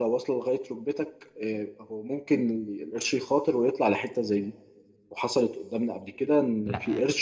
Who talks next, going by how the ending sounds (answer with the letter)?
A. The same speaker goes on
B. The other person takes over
A